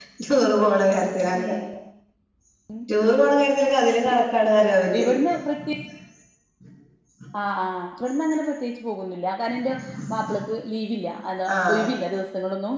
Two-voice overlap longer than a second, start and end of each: none

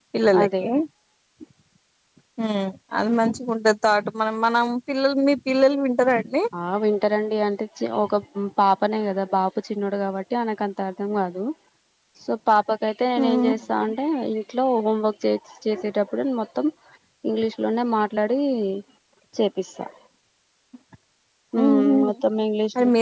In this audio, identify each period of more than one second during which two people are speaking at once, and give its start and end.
none

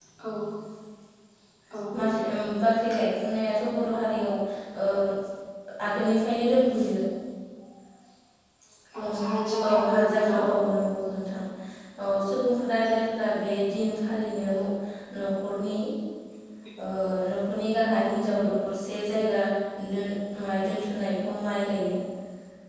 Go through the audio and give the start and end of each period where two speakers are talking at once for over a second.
9.1-10.4

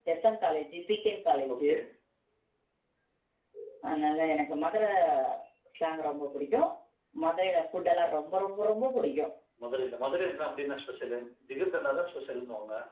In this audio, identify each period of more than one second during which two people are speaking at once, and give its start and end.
none

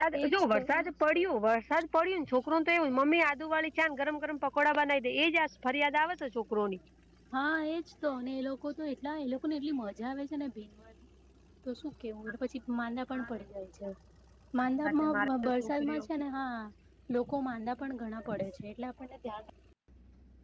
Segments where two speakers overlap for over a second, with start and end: 14.6-16.1

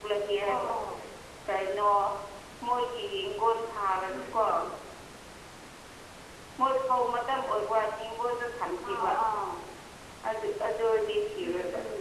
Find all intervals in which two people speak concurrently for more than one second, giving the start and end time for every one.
none

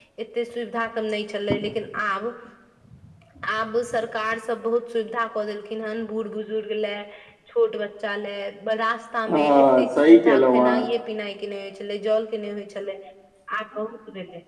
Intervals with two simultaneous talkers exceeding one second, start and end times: 9.3-10.8

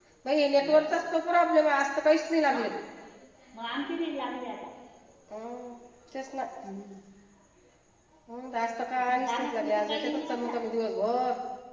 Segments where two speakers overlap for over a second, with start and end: 9.1-10.5

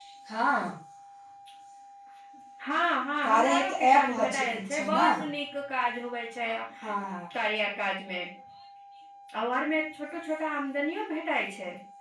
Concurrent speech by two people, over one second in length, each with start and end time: 3.2-5.1

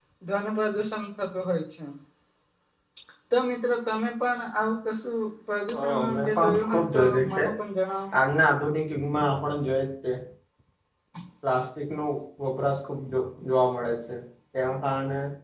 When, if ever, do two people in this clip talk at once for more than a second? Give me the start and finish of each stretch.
5.8-7.4

